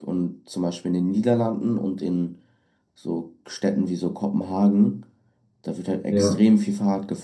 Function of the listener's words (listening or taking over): listening